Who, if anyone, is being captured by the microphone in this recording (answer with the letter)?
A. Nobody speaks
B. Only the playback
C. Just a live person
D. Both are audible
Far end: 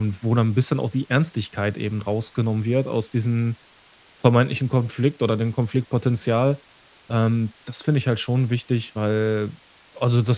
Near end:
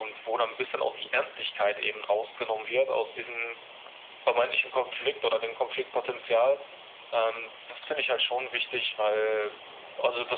B